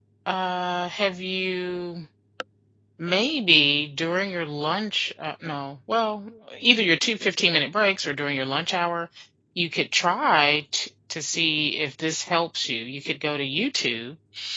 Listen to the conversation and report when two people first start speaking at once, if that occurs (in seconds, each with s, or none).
none